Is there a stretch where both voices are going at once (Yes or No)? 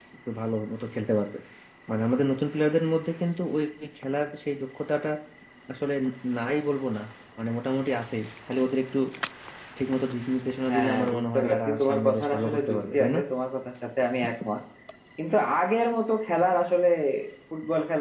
Yes